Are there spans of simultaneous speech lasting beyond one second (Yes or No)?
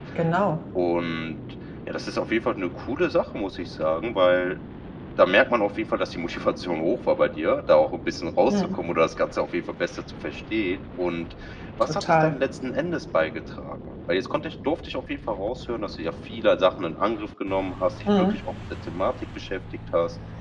No